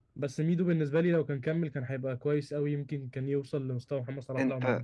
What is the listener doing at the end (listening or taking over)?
taking over